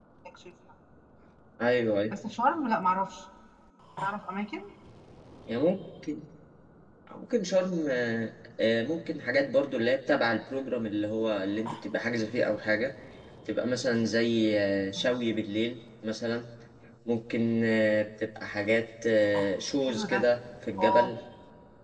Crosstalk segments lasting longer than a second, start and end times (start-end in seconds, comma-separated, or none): none